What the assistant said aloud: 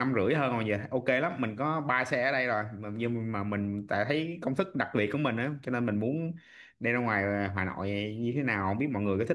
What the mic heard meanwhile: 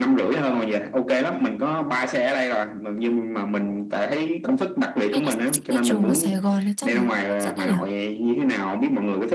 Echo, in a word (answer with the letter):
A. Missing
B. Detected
B